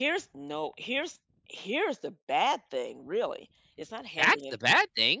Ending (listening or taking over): taking over